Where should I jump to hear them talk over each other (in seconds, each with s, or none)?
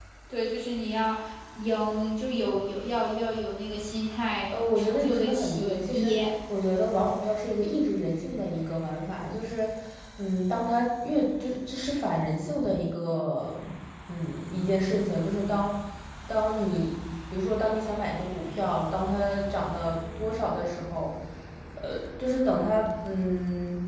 4.5 s